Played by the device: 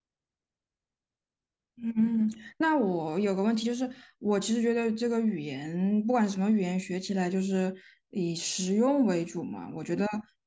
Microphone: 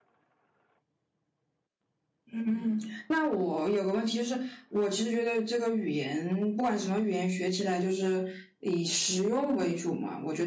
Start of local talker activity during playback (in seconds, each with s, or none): none